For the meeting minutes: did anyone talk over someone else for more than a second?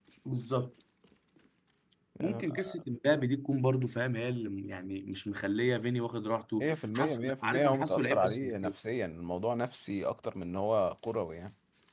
Yes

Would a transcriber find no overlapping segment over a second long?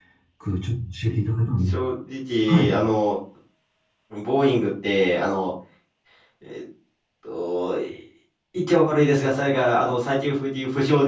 Yes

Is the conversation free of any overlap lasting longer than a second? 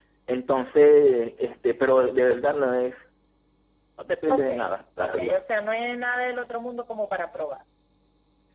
Yes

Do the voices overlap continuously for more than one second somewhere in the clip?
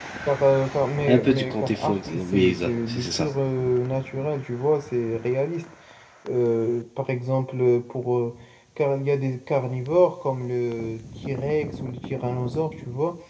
Yes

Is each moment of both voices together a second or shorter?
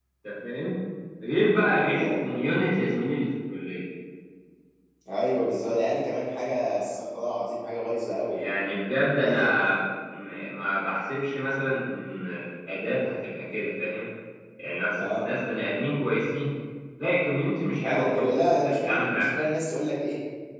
No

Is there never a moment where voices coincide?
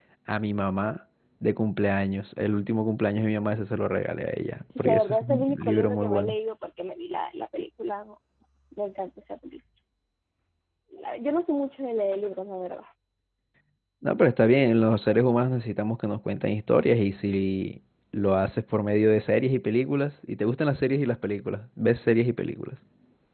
No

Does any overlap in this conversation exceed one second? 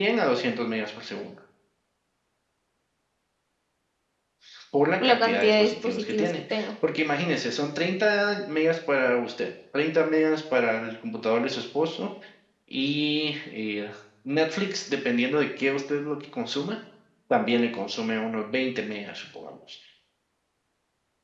Yes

